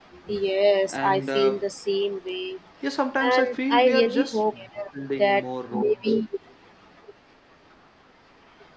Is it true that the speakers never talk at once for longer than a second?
No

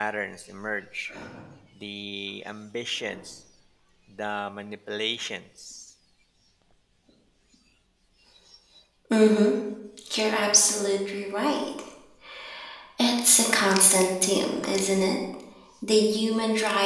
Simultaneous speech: No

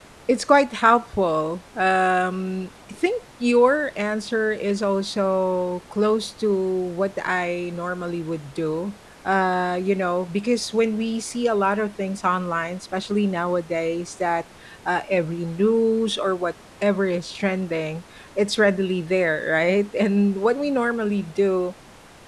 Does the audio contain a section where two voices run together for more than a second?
No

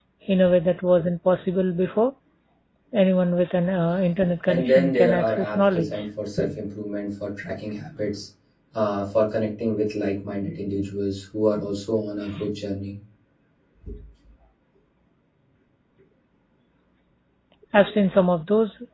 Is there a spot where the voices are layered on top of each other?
Yes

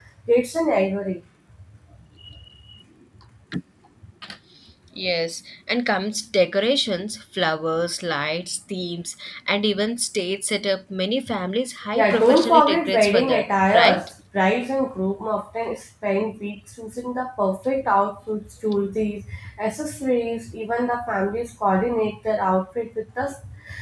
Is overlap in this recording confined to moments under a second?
No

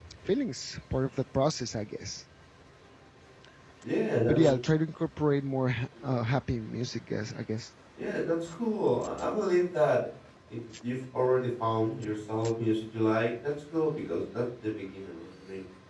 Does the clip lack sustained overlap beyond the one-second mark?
Yes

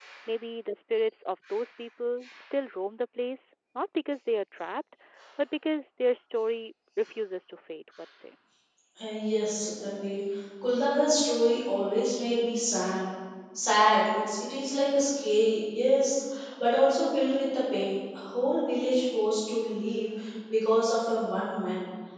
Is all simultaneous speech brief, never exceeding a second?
Yes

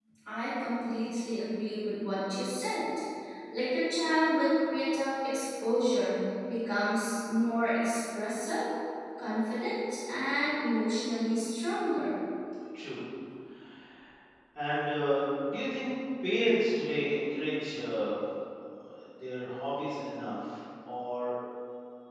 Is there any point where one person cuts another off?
No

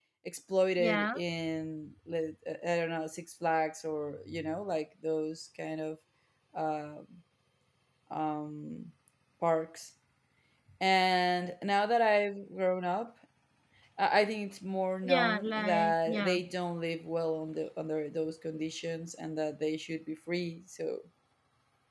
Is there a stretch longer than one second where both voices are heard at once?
Yes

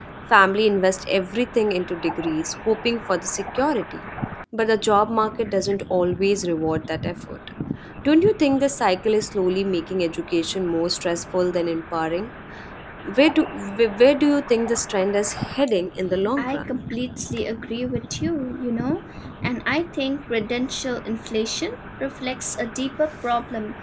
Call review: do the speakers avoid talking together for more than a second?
Yes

